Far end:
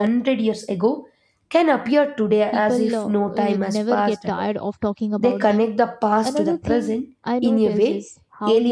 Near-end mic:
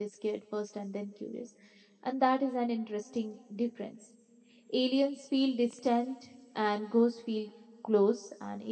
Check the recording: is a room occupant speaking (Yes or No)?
Yes